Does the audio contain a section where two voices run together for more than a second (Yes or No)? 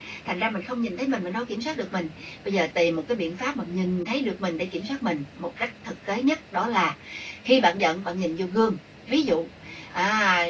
No